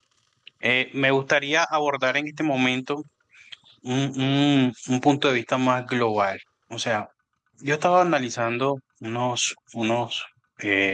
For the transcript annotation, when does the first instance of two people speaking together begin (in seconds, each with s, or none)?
none